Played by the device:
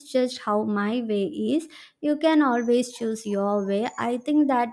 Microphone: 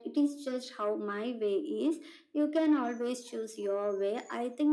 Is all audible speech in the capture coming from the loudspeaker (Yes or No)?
Yes